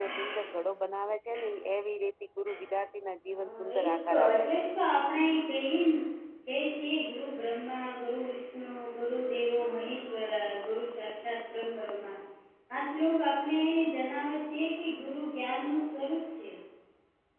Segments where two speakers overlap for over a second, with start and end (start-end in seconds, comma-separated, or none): 3.4-4.7